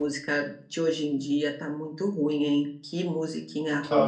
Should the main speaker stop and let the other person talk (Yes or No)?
No